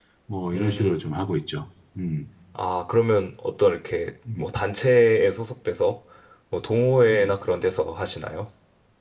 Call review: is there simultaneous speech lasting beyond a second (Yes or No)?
No